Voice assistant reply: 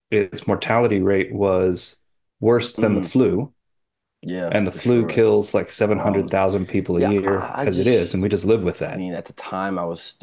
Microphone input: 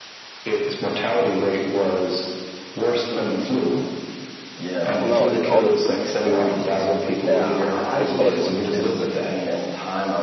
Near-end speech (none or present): present